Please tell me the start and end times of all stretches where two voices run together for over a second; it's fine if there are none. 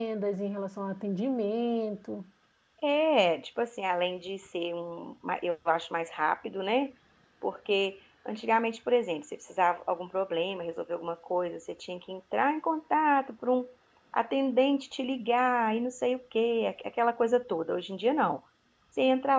none

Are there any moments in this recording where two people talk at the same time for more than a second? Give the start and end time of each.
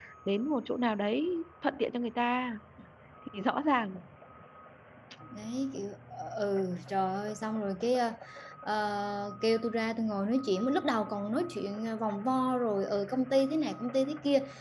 none

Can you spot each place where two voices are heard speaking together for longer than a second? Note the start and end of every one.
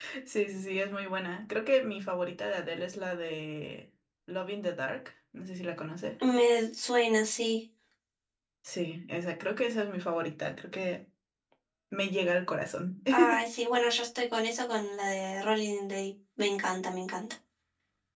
none

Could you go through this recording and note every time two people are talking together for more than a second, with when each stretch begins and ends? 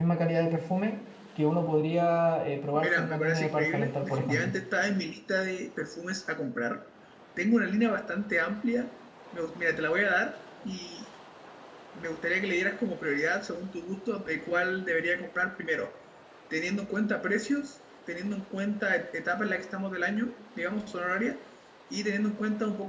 2.7-4.5

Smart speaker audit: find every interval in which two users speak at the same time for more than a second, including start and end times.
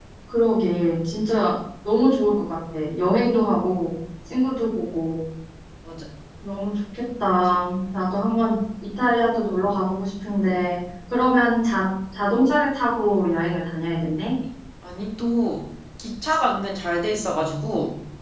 none

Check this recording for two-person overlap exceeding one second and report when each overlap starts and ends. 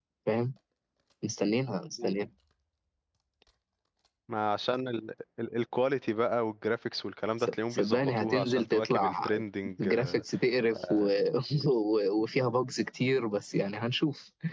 7.4-9.3

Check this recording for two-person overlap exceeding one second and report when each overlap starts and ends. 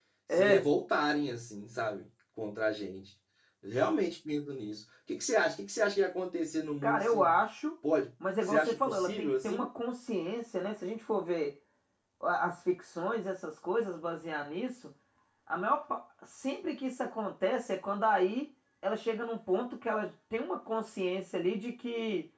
8.4-9.7

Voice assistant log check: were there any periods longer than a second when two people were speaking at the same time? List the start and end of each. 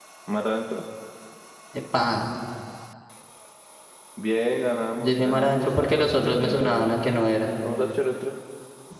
5.0-6.9

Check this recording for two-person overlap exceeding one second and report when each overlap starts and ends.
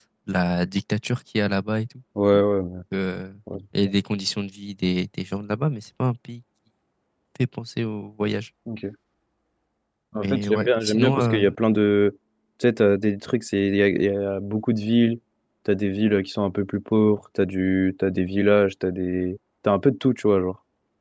10.2-11.4

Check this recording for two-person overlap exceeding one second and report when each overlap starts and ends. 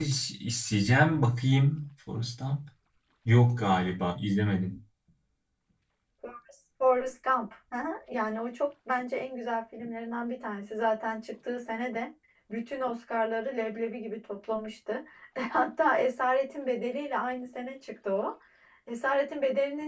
none

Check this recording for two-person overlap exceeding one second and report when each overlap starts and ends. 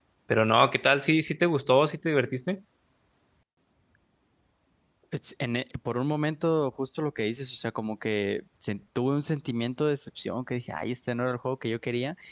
none

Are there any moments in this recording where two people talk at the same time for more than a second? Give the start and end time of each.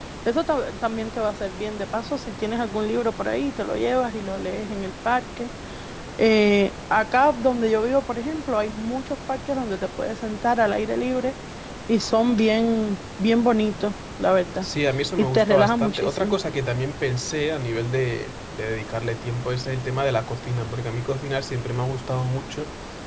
15.2-16.4

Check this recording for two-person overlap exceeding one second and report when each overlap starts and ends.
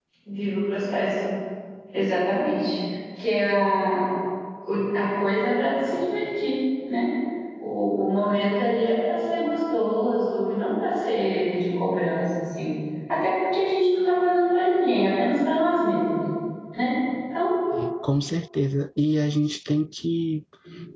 none

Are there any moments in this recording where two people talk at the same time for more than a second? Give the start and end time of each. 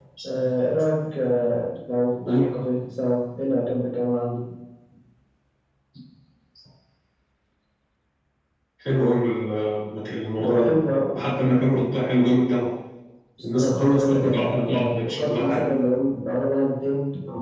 13.6-15.6

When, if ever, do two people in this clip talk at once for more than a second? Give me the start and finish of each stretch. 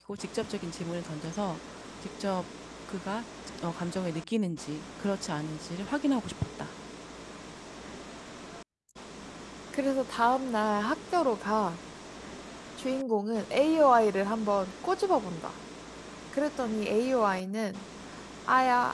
none

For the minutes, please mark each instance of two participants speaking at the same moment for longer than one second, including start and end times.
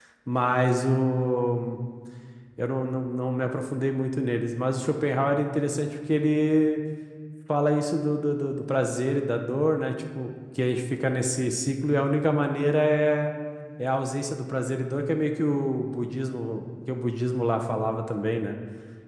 none

